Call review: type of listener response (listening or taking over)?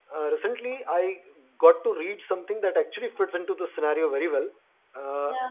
listening